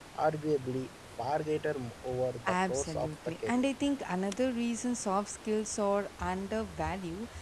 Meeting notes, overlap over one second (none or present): present